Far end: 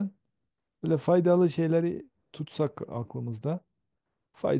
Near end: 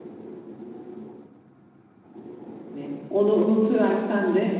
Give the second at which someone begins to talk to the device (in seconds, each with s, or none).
2.7 s